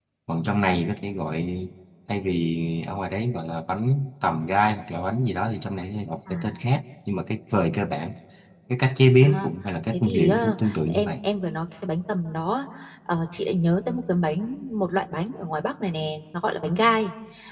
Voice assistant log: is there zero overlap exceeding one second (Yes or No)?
No